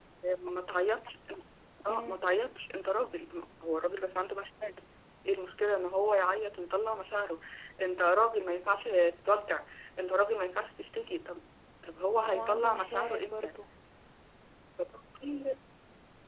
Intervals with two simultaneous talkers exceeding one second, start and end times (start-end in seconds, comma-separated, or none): 12.2-13.5